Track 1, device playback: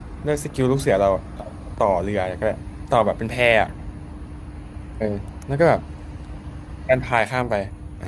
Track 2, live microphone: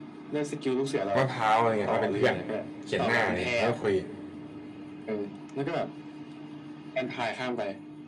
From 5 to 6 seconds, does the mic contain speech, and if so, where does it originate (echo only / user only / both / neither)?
echo only